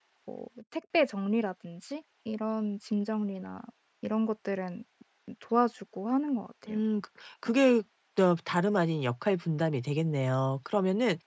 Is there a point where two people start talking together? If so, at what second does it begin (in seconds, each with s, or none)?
none